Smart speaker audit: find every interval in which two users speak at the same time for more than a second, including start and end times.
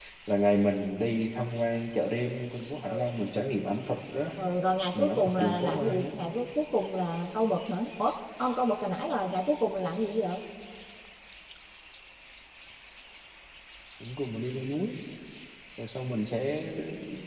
4.9-6.1

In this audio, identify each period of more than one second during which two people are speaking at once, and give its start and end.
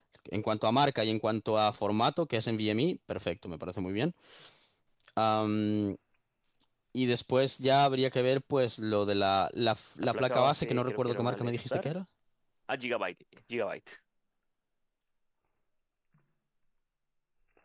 10.0-11.9

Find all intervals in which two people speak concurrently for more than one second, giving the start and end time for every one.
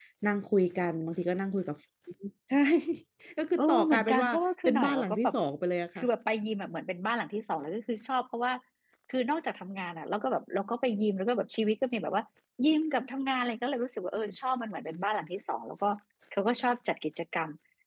3.6-5.3

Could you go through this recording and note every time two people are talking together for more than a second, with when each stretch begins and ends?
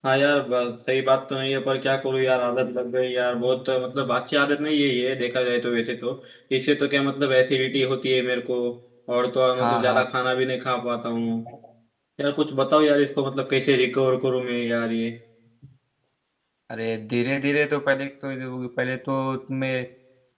none

